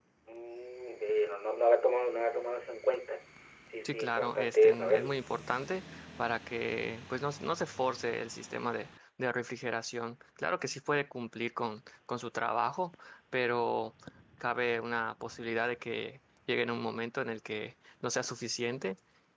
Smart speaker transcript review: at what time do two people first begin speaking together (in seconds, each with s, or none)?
3.9 s